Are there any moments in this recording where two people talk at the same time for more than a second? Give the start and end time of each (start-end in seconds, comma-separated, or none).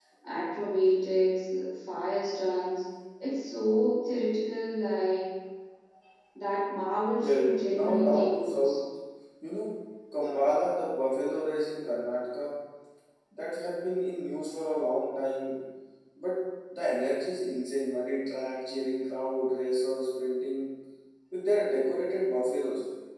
7.2-8.8